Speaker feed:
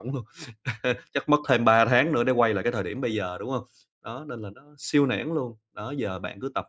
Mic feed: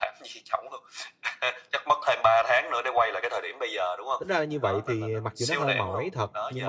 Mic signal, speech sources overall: both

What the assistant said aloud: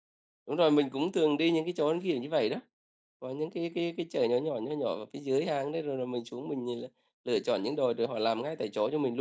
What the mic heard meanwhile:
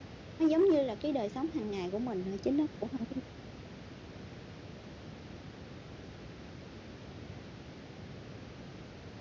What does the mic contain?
user only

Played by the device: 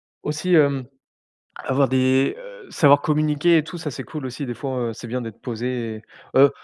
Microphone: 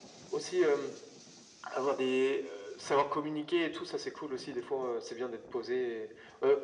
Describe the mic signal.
echo only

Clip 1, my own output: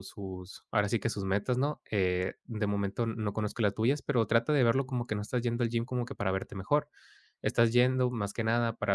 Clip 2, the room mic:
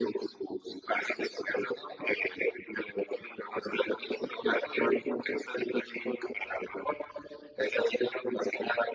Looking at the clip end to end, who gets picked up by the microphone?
echo only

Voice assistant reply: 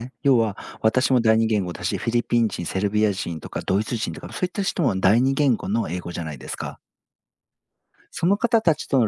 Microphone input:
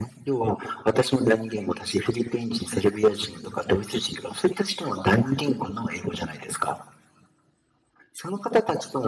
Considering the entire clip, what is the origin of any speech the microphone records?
echo only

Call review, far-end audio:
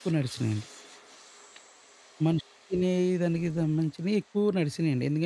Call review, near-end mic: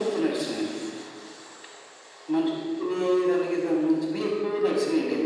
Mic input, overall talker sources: echo only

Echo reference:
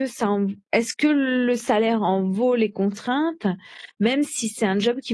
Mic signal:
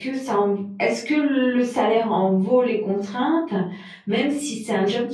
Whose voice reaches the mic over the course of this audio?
echo only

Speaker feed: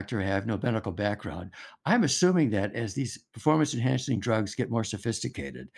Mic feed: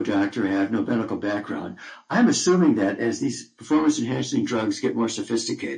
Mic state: echo only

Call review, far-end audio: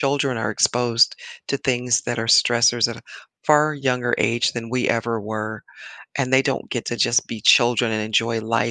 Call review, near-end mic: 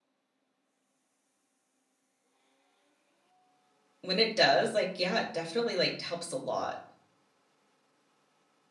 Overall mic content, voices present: user only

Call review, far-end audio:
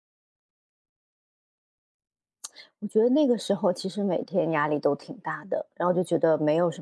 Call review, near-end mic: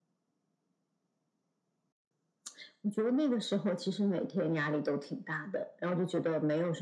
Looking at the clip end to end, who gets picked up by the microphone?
echo only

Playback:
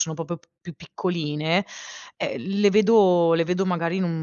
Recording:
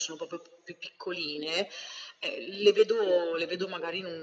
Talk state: echo only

